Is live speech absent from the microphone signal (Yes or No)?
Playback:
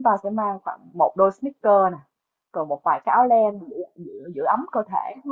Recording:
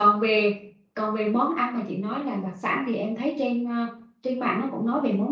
No